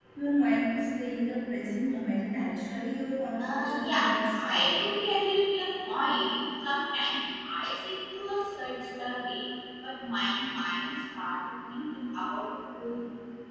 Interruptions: present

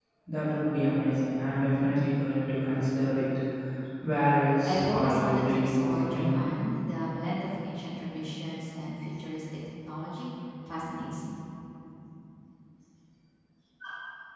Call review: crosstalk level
present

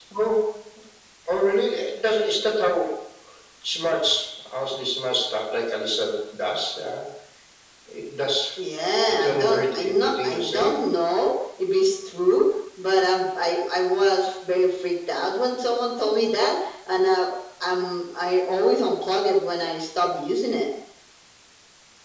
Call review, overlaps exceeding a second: present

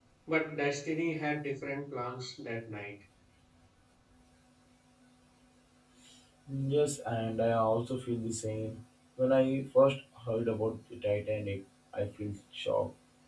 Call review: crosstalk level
none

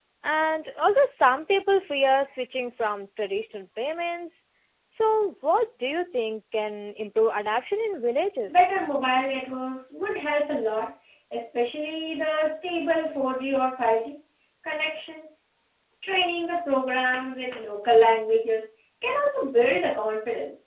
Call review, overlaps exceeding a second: none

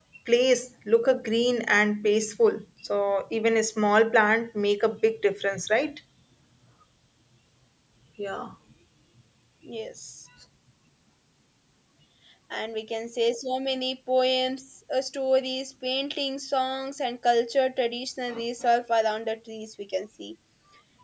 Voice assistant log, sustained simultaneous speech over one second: none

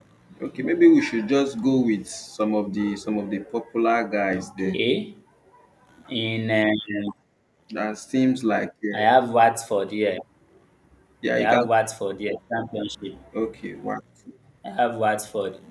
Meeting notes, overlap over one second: none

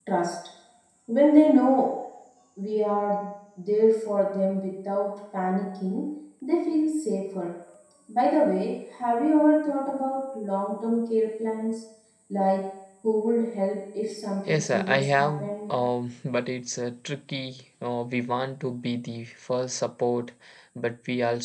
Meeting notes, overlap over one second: present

